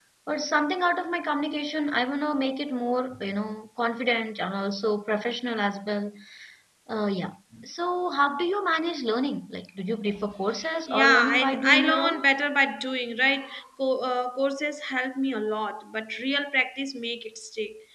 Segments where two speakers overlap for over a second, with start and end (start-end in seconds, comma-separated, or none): 10.9-12.2